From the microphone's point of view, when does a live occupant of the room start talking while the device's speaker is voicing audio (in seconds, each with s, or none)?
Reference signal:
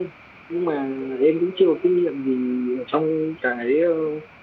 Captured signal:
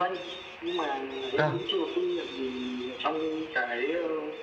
1.4 s